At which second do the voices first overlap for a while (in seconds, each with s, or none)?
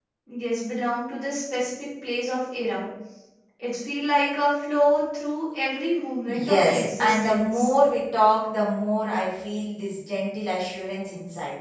6.3 s